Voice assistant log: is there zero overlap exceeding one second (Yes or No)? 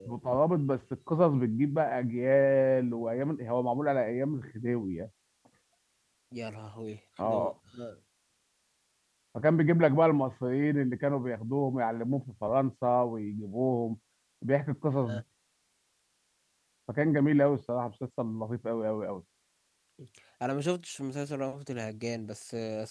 Yes